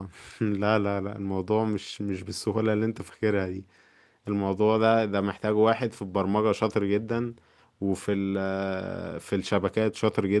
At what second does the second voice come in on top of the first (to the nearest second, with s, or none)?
none